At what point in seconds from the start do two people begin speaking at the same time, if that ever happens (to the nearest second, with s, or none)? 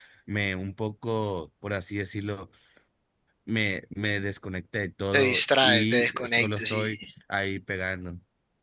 5 s